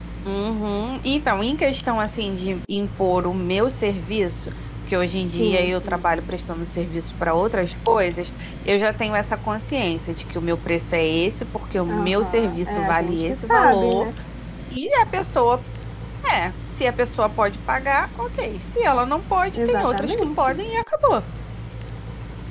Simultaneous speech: Yes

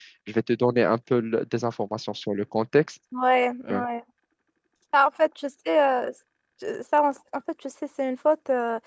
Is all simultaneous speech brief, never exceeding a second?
Yes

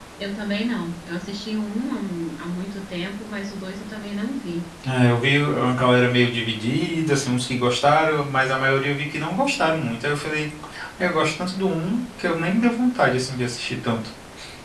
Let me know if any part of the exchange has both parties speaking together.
No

